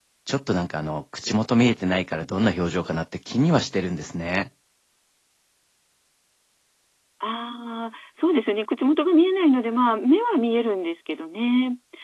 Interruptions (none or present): none